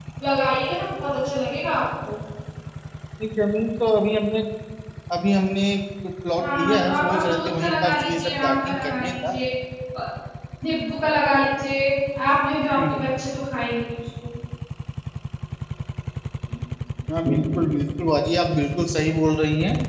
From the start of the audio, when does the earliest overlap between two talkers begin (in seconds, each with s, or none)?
6.4 s